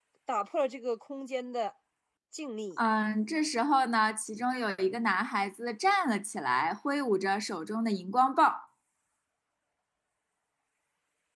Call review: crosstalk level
none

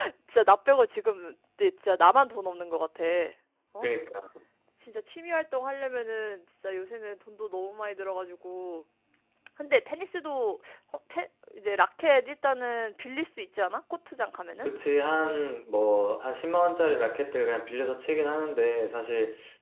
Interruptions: none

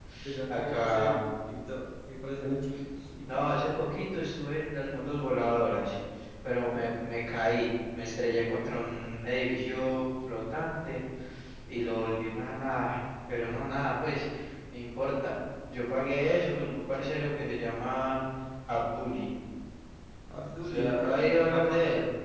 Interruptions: present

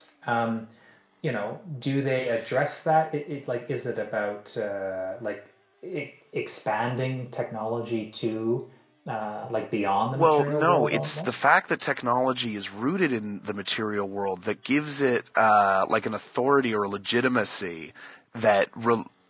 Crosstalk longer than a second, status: present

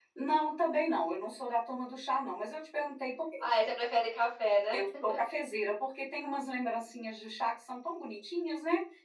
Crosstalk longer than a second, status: none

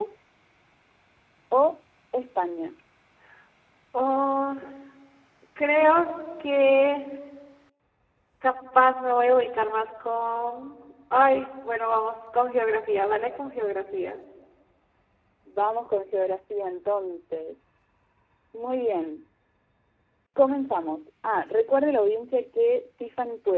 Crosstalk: none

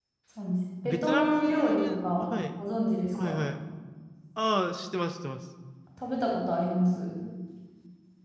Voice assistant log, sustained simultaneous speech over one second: present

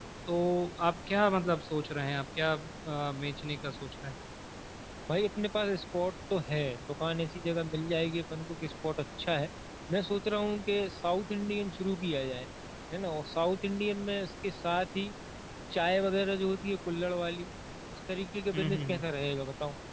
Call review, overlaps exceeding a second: none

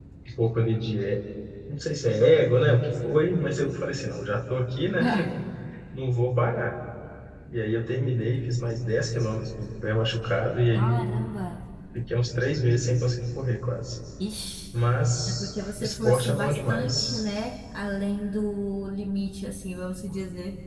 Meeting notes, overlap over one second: present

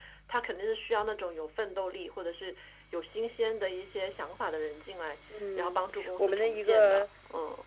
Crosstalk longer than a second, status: present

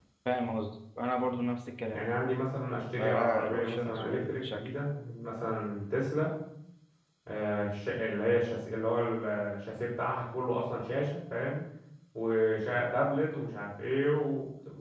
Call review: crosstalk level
present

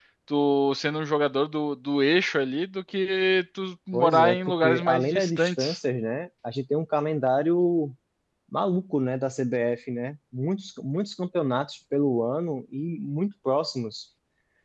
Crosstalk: present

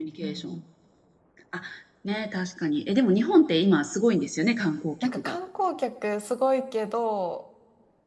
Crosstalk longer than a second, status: none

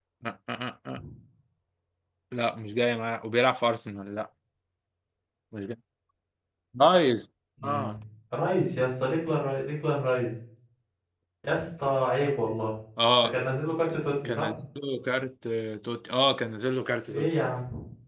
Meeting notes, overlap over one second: none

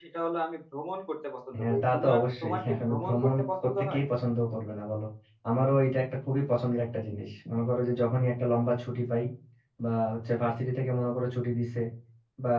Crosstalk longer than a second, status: present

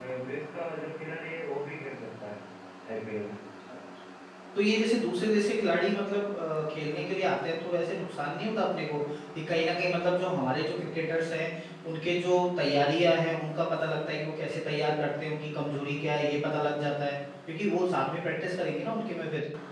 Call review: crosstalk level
none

